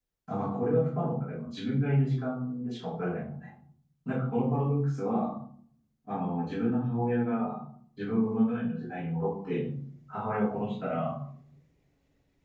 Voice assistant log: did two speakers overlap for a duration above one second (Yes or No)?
No